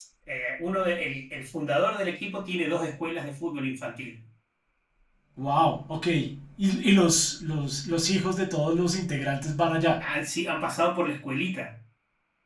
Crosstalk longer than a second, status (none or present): none